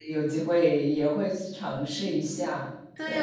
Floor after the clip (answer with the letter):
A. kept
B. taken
B